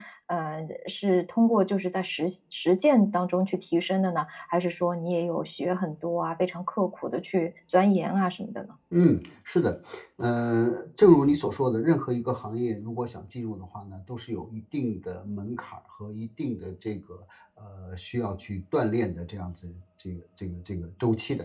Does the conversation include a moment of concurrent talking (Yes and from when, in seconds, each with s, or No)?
No